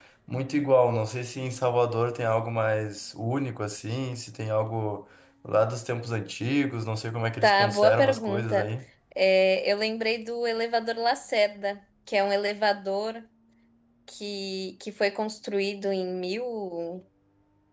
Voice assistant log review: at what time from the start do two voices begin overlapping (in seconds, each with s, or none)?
7.4 s